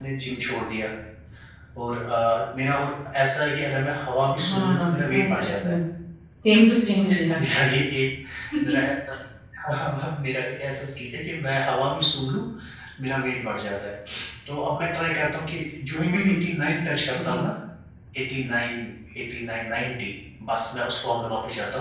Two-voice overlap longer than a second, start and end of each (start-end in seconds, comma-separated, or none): 4.5-5.8